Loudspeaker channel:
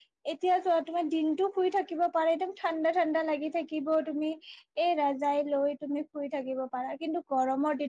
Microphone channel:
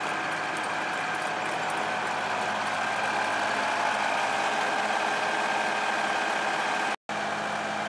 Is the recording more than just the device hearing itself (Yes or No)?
No